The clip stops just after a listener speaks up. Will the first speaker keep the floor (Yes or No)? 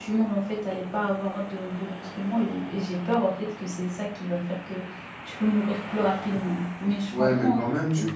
No